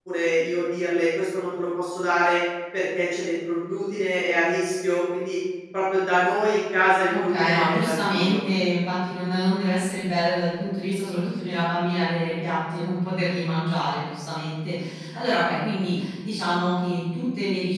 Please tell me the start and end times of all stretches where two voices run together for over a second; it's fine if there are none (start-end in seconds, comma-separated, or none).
7.1-8.4